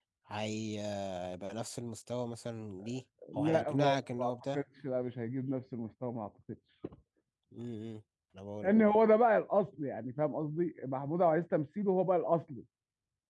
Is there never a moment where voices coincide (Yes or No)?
No